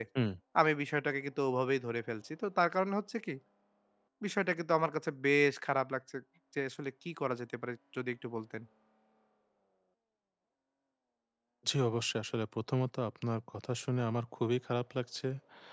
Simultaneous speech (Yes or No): No